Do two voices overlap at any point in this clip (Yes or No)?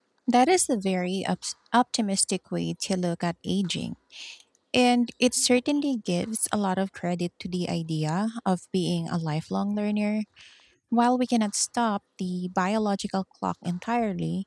No